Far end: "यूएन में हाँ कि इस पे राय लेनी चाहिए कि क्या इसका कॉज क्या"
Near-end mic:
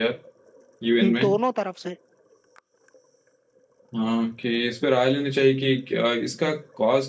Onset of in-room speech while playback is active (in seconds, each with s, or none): 1.0 s